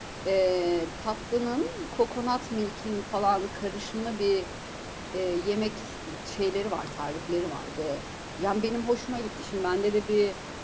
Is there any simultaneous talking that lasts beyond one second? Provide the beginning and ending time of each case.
none

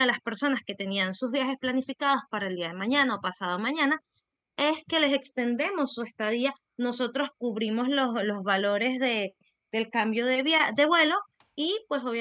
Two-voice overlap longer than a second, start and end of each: none

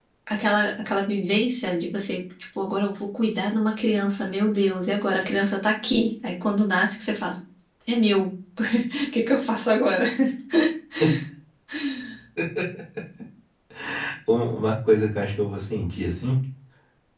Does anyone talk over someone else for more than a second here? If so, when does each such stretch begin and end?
none

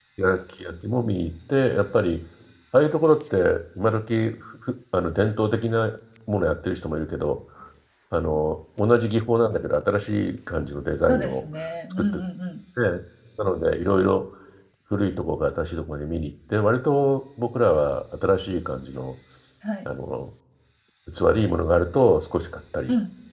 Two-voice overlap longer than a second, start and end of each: none

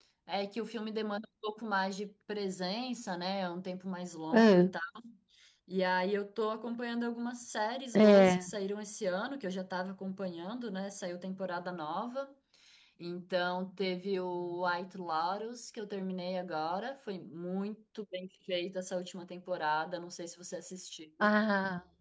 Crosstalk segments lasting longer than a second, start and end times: none

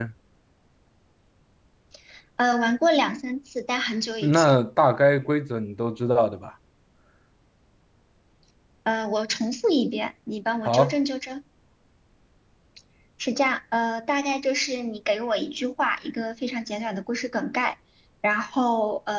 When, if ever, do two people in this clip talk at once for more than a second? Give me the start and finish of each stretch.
none

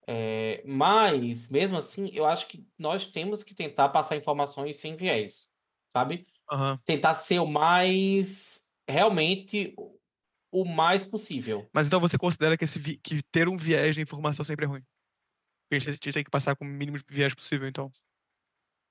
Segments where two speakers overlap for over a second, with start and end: none

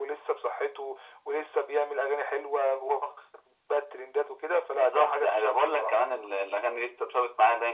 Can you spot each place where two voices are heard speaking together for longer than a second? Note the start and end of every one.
4.7-6.0

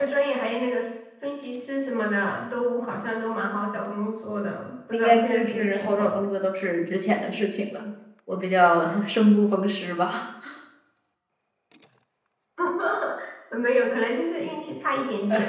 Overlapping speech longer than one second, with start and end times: 4.9-6.2

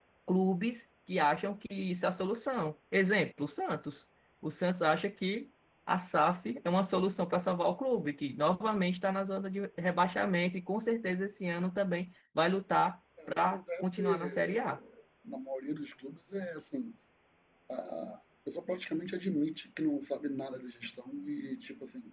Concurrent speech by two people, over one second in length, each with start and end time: 13.3-14.8

